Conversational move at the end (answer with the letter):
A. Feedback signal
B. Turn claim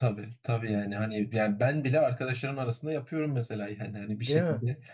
A